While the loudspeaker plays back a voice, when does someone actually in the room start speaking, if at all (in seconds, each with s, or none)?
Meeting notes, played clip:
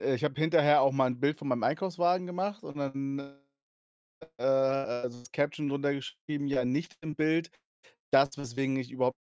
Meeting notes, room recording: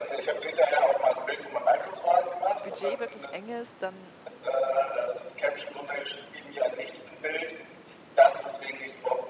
2.6 s